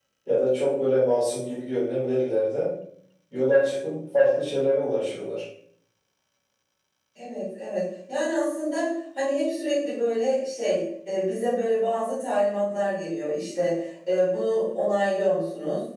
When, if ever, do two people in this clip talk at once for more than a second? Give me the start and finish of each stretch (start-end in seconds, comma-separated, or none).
none